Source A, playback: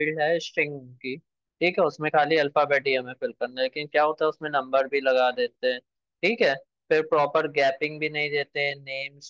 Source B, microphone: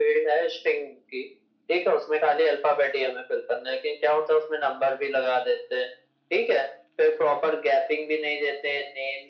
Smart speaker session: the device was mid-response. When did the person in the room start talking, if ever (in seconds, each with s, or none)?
none